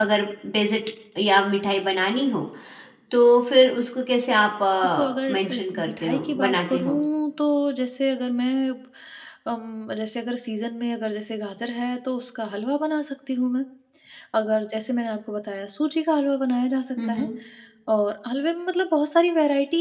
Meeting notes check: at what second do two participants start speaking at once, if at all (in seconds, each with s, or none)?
5.0 s